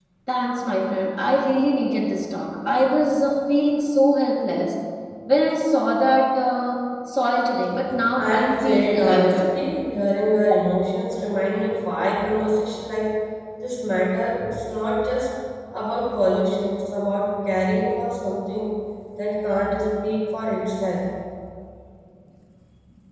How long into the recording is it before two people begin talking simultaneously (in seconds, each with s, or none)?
8.2 s